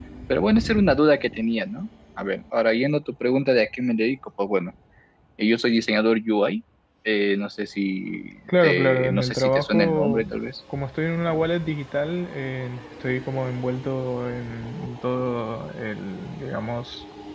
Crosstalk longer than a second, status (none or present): present